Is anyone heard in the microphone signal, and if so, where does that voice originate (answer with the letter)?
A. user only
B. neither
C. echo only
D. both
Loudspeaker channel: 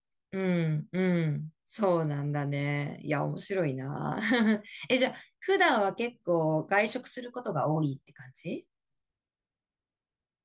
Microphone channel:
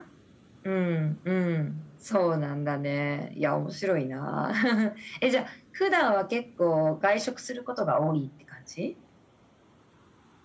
C